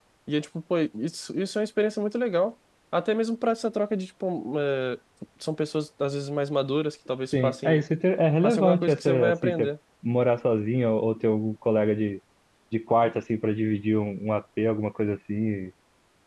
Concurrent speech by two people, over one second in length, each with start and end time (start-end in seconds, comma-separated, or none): 8.4-9.7